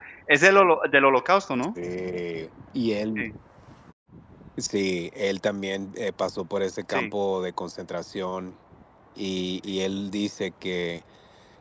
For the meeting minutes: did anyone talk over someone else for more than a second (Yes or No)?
No